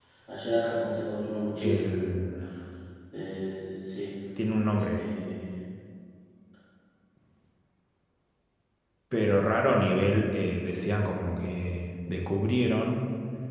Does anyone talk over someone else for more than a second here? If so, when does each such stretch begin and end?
none

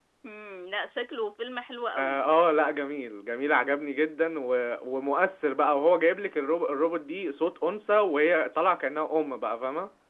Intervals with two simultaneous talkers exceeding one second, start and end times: none

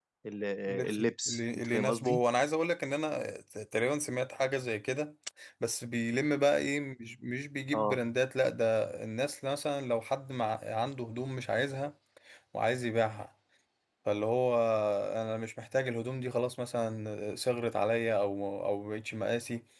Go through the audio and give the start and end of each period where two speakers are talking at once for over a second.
0.9-2.2

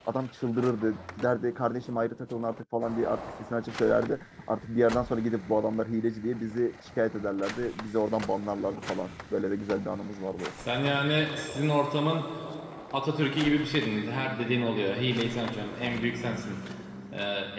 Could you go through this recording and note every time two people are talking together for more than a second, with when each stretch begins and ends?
none

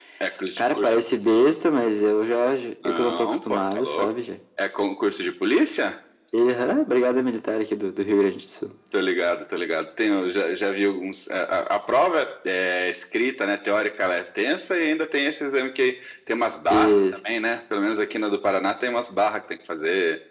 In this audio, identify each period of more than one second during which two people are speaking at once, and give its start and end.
2.9-4.1

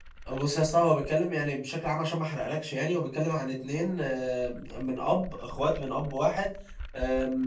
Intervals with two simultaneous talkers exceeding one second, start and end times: none

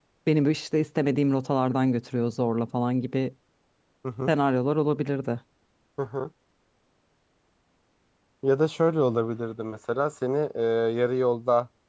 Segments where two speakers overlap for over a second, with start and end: none

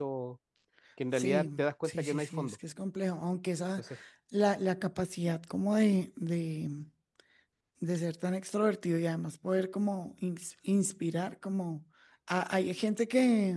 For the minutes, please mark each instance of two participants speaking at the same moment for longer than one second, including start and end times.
1.1-2.5

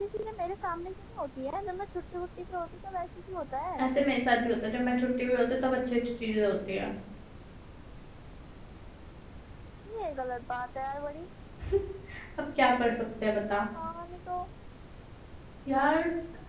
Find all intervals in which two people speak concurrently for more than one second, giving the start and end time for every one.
none

